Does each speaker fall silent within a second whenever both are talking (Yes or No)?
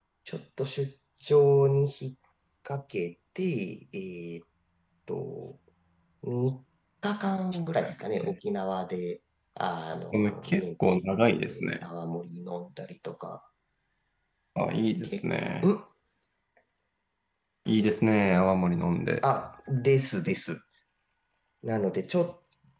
No